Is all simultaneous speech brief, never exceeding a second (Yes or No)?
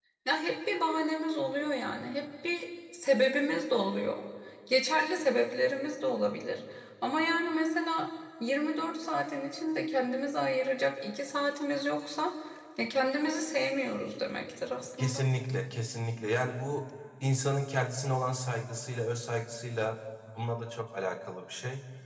Yes